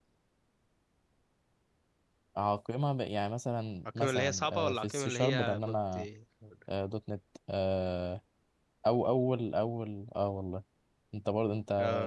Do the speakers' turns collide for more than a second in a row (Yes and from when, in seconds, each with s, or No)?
Yes, from 4.0 s